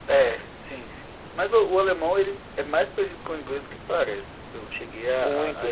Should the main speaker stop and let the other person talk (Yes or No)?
Yes